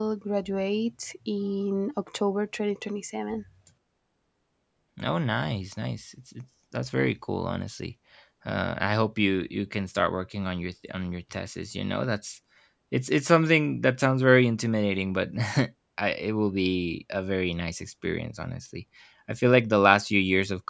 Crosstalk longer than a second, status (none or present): none